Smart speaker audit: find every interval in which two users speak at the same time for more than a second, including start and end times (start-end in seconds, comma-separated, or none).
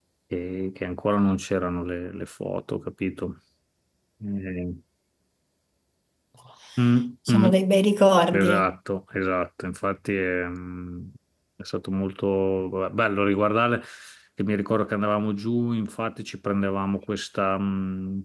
none